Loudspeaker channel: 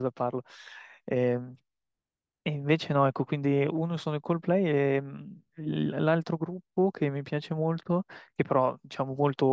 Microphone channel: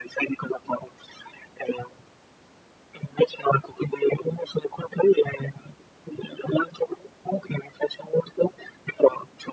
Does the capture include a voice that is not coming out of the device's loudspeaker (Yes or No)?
No